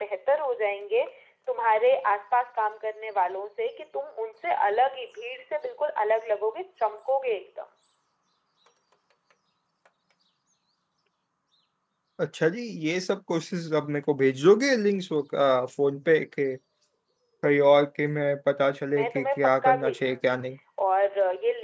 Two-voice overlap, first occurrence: 18.9 s

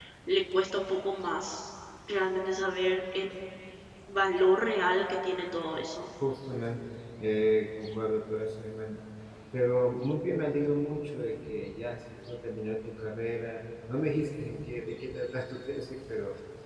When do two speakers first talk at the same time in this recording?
none

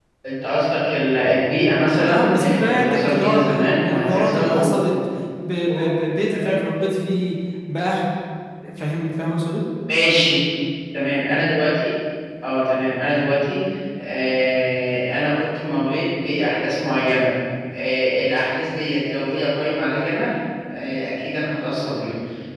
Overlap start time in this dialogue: 2.1 s

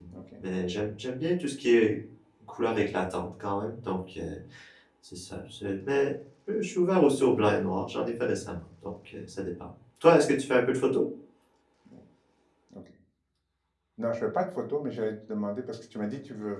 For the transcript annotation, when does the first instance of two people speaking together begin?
none

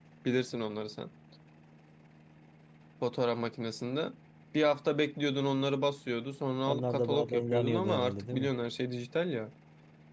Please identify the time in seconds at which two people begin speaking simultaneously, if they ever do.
6.7 s

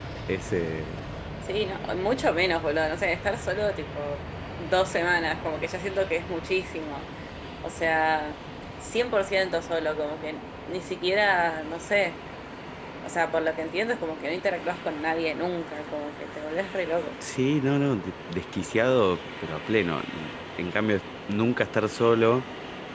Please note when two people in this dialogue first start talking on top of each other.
none

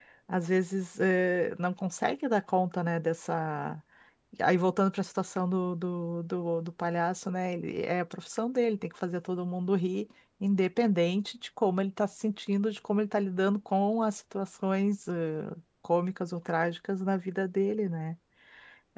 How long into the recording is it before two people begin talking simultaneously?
none

